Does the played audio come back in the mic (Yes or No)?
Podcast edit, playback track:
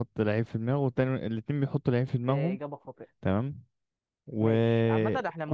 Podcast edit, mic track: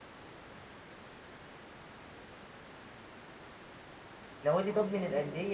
No